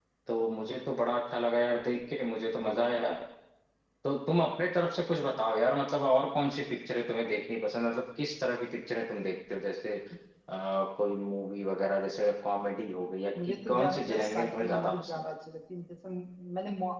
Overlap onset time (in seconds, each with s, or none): 13.4 s